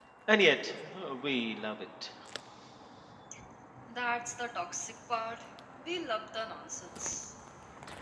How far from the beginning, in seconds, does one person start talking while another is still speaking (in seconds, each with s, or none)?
none